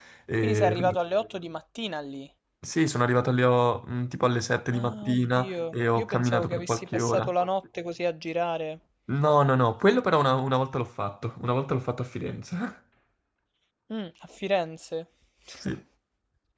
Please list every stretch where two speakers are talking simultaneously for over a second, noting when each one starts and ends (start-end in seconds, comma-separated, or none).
4.7-7.3